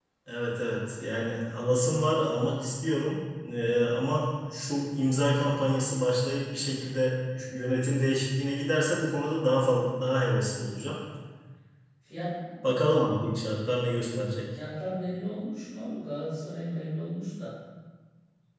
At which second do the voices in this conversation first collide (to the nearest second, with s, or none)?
none